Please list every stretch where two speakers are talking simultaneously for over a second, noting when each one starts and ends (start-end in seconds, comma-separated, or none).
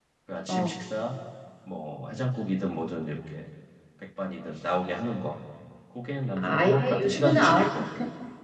6.4-7.8